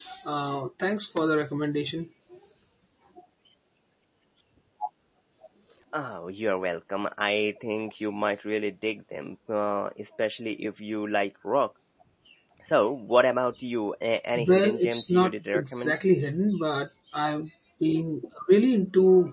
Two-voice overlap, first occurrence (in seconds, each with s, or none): 14.4 s